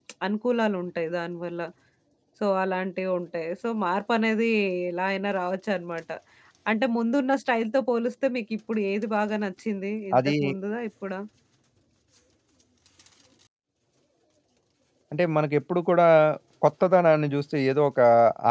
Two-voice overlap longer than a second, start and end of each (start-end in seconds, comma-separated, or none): none